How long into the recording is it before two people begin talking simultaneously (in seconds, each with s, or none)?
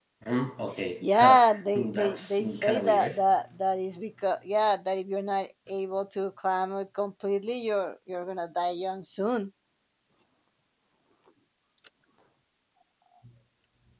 1.0 s